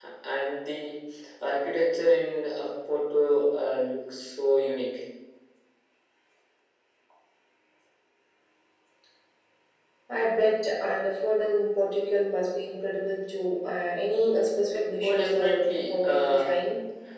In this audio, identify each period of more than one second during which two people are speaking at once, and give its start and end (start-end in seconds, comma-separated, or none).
15.0-16.6